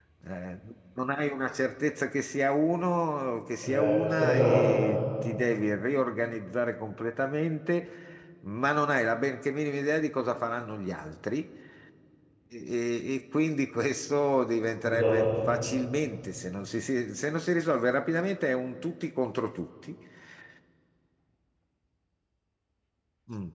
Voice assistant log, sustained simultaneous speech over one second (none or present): present